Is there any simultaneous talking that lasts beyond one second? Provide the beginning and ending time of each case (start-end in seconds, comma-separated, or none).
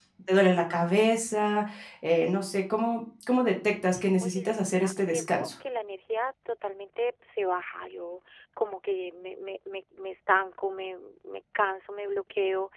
4.2-5.5